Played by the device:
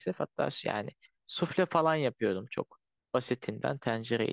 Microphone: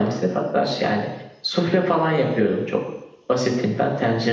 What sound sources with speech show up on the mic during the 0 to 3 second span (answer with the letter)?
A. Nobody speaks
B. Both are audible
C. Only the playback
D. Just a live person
C